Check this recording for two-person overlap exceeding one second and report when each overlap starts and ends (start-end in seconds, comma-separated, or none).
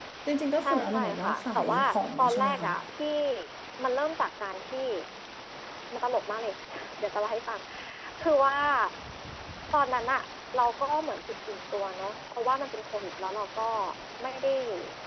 0.6-2.7